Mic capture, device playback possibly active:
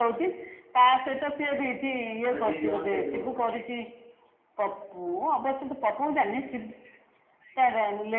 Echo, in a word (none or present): present